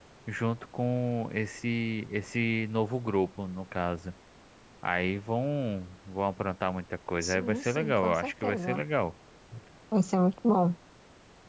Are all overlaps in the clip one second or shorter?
No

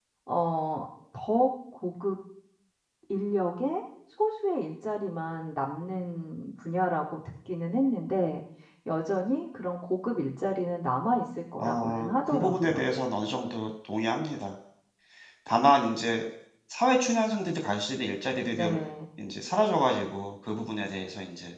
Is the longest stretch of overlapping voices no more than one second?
No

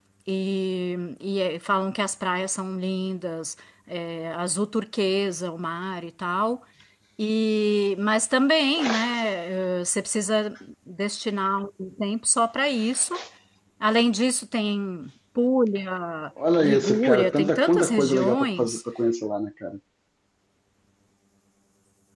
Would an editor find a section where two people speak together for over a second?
Yes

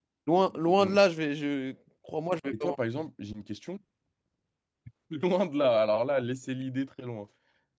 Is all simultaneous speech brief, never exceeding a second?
Yes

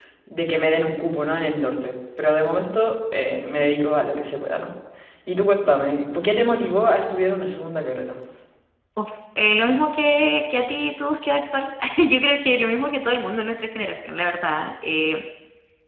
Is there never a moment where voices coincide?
Yes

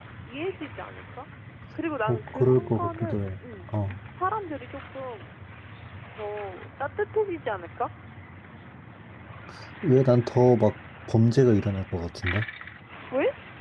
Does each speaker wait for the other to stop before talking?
No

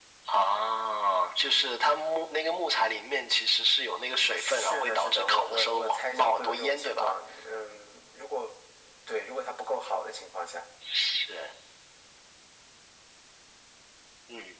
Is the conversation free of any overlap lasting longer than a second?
No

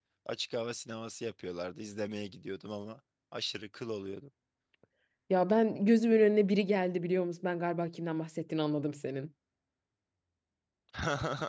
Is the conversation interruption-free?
Yes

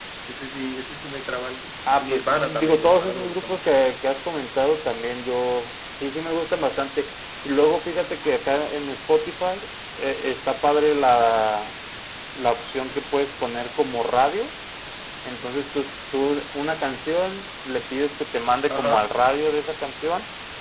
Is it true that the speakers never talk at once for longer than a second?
No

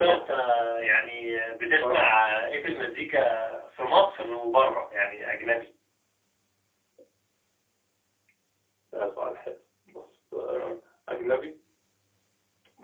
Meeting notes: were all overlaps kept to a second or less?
Yes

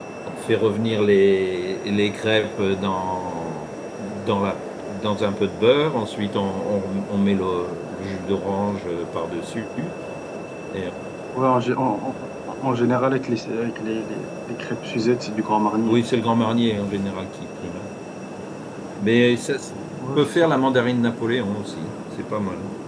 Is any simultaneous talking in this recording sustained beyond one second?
No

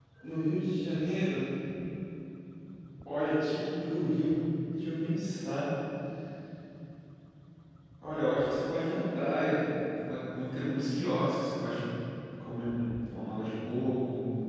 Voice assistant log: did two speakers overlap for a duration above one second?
No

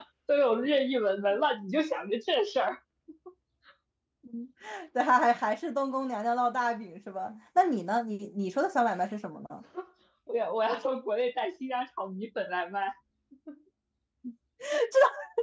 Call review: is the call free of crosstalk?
Yes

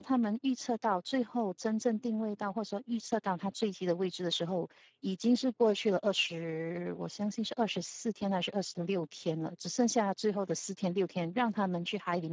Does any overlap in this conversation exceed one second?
No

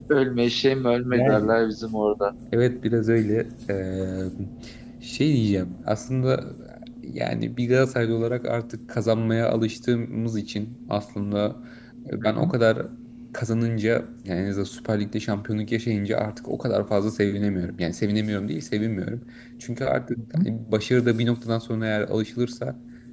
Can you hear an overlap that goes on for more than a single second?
No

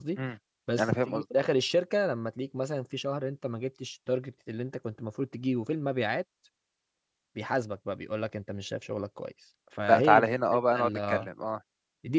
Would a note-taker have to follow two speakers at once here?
Yes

